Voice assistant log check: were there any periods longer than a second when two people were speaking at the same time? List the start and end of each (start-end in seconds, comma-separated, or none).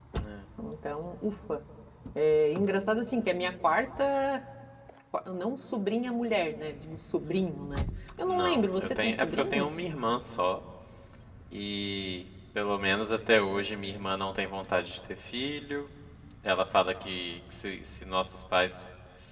8.2-9.8